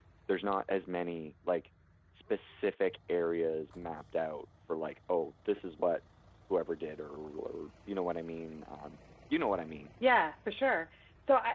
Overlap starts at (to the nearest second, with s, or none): none